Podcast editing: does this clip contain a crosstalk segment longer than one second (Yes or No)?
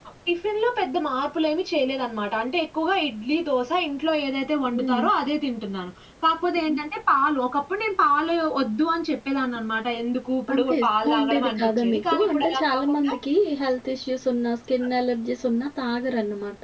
Yes